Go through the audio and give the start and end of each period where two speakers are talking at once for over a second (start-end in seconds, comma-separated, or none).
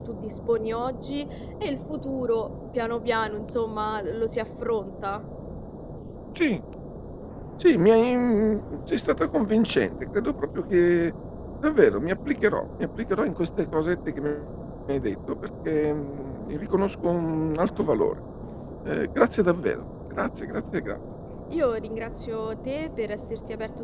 none